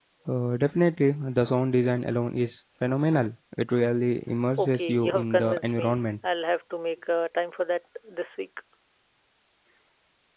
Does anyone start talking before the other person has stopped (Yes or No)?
Yes